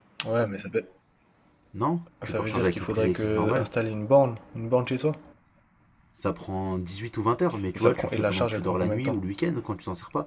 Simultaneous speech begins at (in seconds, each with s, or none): 2.2 s